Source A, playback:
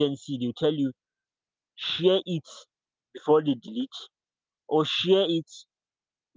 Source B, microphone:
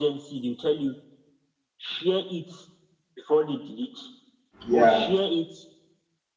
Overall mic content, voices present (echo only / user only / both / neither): both